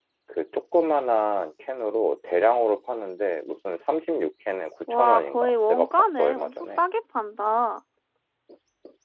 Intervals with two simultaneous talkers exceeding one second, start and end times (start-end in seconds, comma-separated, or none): 4.9-6.8